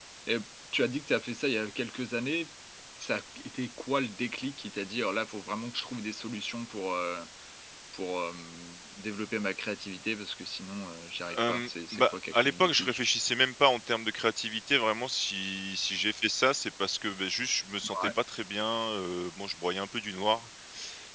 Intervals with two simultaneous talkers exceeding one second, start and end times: 11.4-13.0

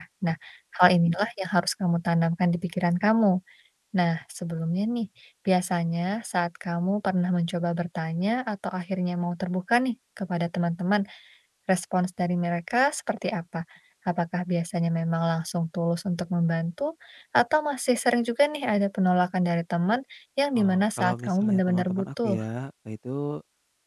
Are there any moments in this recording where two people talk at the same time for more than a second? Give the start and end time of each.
20.6-22.4

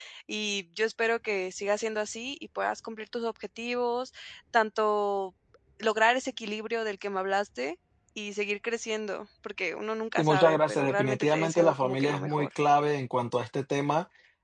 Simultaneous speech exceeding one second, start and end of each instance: 10.2-12.5

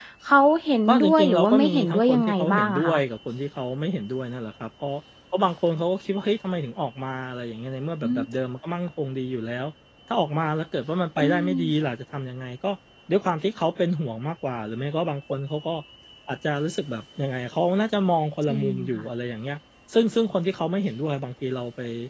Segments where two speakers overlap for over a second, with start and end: 0.9-3.0

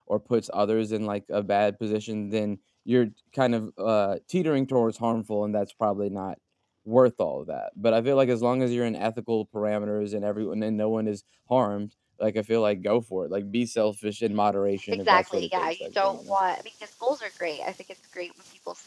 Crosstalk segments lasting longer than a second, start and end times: 15.1-16.4

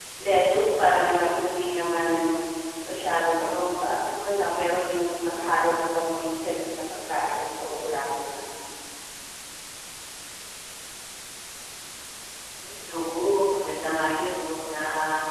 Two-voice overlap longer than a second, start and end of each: none

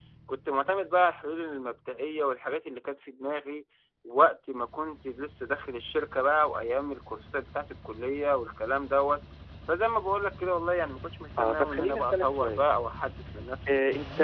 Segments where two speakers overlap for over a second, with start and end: 11.4-12.6

